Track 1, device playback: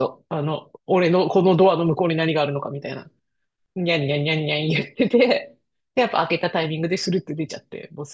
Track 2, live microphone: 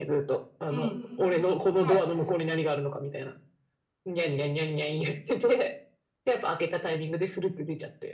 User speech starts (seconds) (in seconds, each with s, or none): 0.7 s